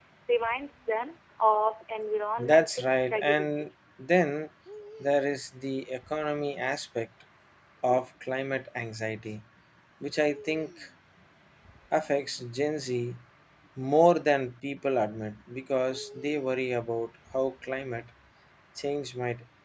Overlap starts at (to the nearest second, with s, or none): 2 s